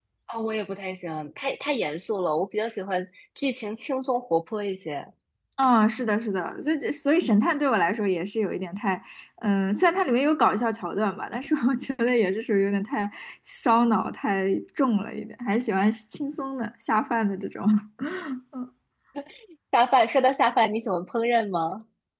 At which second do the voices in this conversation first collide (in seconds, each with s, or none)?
none